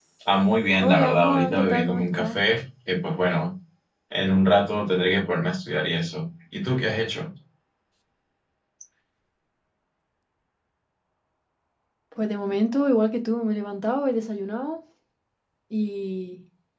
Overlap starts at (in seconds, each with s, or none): 0.8 s